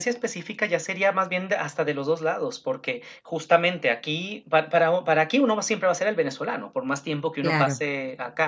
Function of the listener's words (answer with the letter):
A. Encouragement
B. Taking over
A